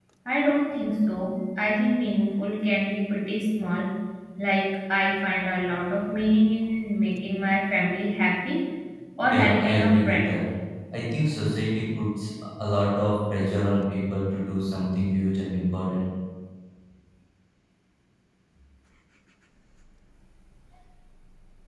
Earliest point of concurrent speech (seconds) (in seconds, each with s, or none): 9.2 s